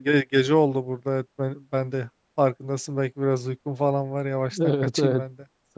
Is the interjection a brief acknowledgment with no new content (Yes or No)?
No